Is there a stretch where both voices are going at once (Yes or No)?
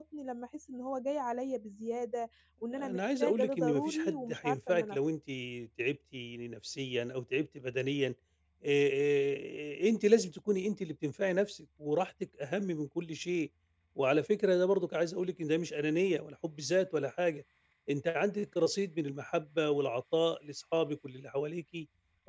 Yes